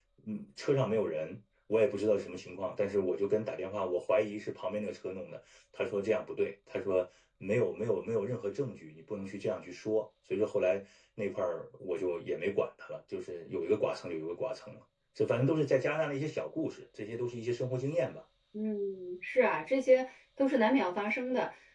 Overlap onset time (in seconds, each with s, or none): none